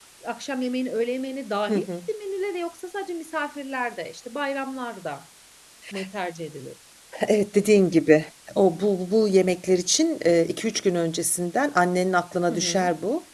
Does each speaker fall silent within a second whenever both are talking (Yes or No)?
Yes